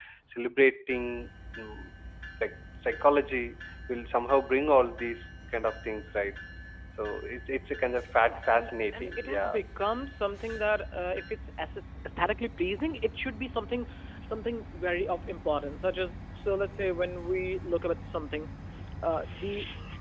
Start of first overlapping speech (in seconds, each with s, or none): 8.2 s